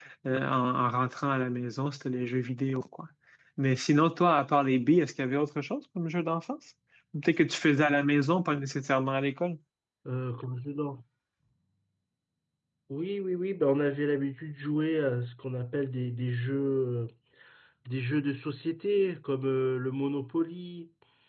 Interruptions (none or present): none